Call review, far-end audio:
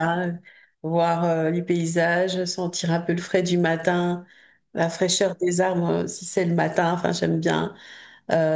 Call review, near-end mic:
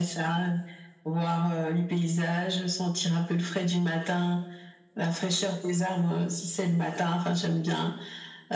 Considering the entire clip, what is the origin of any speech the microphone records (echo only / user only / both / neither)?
echo only